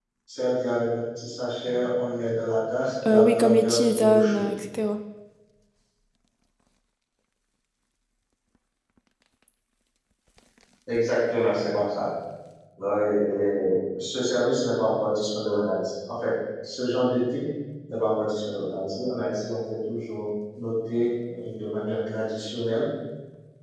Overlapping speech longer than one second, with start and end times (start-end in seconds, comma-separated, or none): 3.0-4.5